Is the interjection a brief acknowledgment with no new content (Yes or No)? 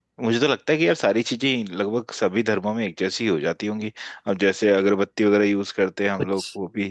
No